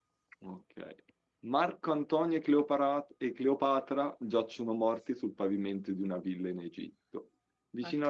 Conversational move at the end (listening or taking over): listening